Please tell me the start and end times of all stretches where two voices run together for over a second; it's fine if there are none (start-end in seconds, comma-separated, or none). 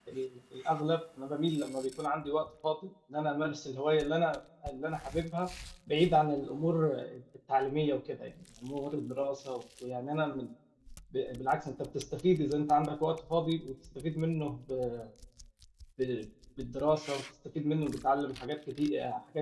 none